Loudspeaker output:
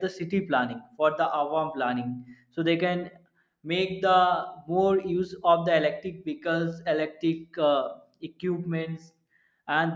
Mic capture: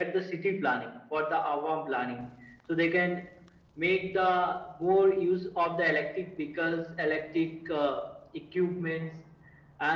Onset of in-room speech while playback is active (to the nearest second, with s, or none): none